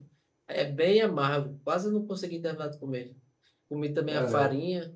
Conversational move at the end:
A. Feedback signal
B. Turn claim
A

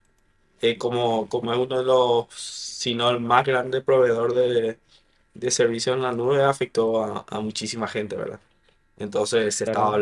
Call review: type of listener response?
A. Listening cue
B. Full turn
B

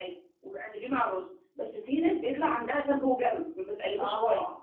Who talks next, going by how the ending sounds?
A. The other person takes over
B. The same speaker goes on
A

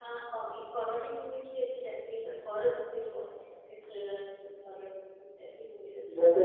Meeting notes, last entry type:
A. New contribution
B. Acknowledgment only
A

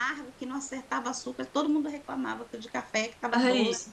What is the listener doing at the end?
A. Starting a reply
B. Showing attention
B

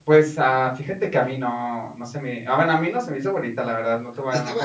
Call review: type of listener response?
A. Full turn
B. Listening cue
A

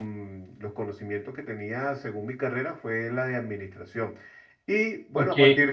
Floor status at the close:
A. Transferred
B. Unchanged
B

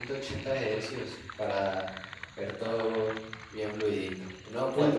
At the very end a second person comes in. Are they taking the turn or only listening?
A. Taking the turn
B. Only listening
B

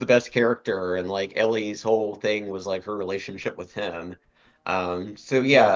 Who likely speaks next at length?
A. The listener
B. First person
B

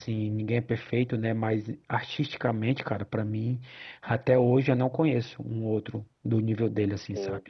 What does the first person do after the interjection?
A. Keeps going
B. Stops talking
B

